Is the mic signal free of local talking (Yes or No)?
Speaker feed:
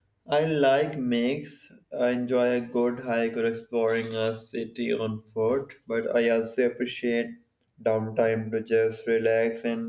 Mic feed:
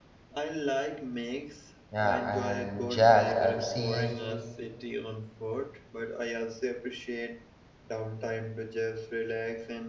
No